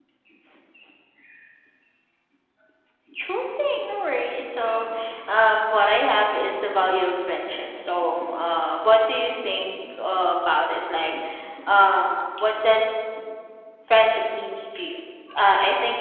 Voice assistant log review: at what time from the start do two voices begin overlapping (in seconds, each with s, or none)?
none